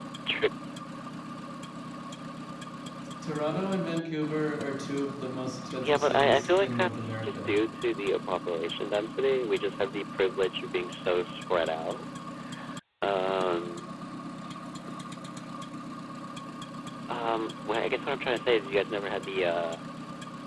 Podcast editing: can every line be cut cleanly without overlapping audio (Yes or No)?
No